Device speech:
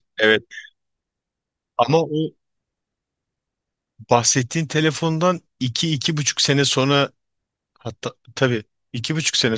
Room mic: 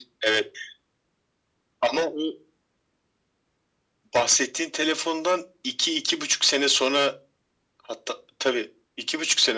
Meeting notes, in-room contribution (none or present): none